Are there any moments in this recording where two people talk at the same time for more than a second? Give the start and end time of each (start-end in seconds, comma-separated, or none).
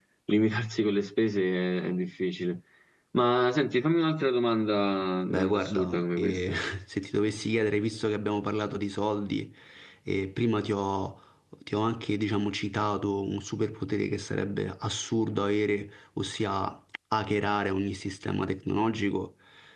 5.3-6.5